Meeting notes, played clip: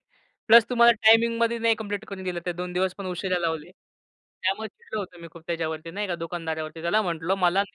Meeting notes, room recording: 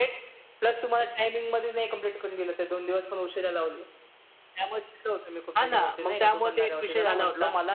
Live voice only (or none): हां, ना, मग त्यामुळे ते एक विषय झाला होता